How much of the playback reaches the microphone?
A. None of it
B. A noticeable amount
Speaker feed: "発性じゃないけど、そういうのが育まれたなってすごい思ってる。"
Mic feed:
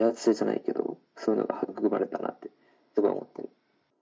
B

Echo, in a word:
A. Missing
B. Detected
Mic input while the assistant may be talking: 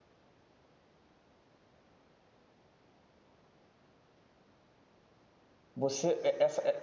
A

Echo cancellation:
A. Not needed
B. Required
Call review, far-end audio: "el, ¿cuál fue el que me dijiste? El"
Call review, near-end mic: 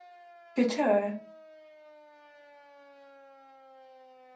A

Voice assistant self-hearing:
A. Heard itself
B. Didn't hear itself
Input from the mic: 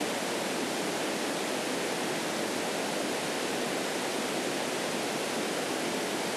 B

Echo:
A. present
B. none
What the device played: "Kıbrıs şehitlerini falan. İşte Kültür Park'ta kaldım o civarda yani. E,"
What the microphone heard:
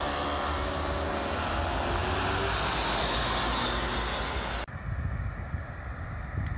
B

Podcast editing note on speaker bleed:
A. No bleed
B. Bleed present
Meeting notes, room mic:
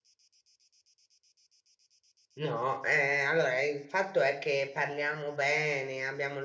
A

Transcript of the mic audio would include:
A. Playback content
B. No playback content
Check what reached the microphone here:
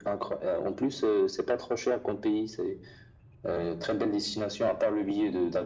A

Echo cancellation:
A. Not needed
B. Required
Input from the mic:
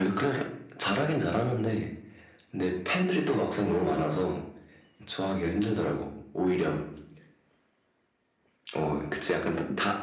B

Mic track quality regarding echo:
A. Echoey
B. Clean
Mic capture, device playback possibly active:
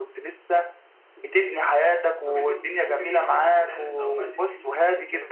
A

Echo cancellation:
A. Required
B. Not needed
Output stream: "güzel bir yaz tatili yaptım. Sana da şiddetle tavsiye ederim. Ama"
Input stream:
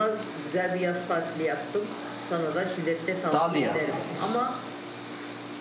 A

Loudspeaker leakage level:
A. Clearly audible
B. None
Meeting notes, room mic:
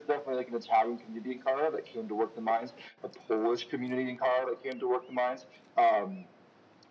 A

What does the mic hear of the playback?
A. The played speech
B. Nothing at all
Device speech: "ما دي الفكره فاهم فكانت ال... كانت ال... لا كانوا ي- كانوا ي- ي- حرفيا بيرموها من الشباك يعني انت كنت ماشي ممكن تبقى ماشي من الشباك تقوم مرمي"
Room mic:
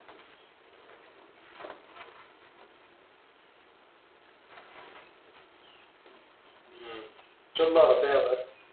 B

